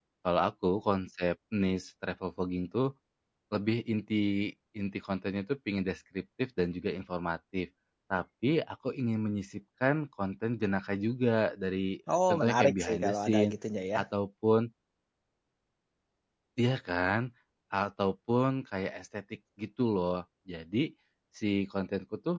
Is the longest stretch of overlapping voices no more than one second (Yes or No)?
No